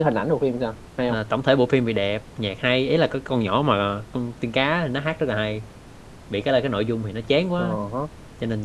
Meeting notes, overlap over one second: none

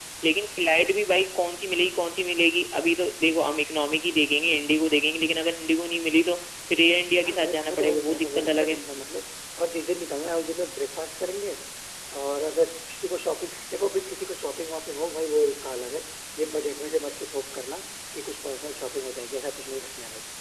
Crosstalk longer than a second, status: present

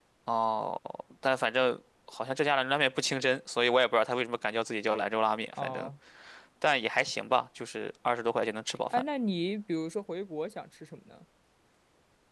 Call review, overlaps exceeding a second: none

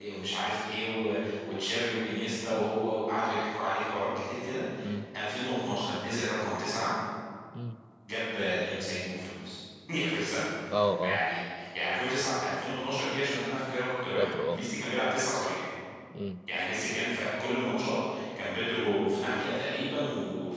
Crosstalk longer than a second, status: none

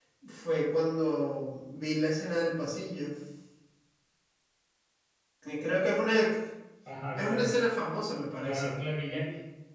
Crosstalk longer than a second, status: none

